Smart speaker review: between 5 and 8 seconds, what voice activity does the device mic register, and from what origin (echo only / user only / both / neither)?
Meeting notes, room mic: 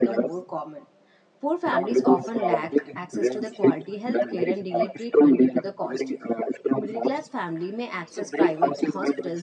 both